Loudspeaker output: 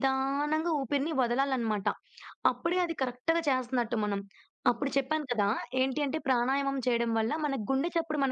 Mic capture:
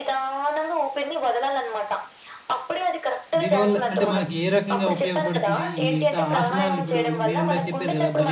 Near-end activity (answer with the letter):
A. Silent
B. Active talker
B